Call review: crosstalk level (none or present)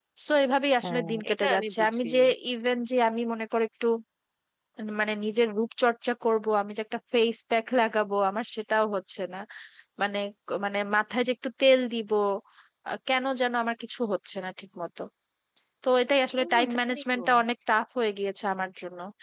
present